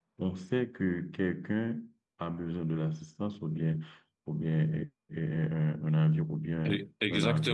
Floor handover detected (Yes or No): Yes